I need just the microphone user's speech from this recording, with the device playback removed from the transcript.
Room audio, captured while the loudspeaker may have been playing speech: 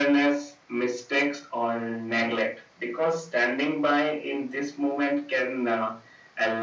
none

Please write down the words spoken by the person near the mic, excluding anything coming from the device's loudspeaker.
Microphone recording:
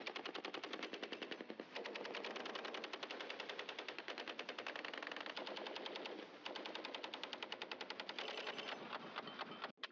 none

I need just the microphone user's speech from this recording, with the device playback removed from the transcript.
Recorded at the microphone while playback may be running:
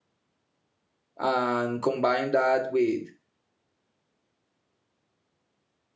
and combine that with

